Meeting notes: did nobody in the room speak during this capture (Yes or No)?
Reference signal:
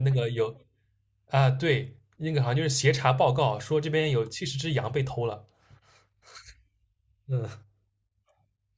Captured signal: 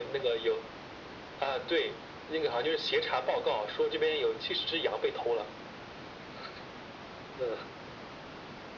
Yes